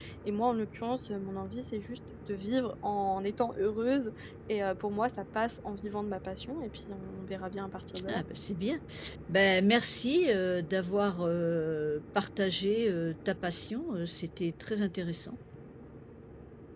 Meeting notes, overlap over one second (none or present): none